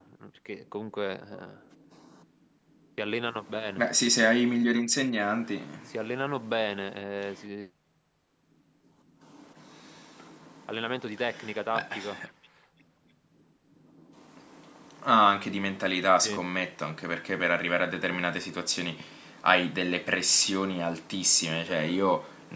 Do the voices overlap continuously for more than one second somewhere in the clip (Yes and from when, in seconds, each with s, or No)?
No